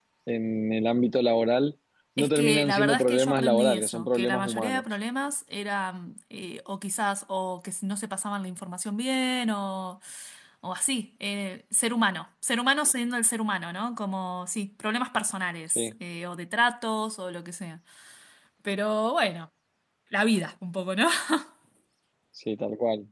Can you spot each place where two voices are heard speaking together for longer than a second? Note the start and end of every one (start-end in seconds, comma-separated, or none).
2.2-4.8